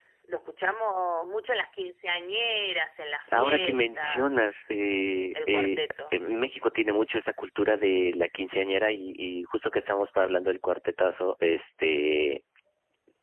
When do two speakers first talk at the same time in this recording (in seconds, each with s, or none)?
3.3 s